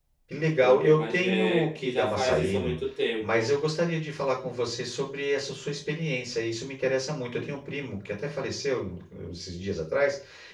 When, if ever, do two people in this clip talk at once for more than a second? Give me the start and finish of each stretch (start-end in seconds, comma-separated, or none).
0.6-2.8